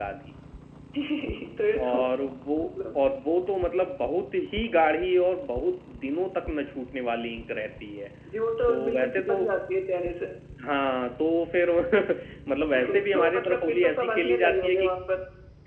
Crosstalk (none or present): present